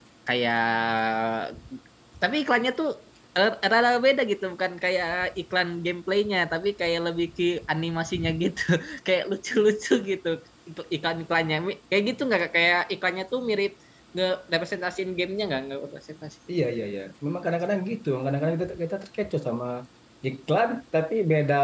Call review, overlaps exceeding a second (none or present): none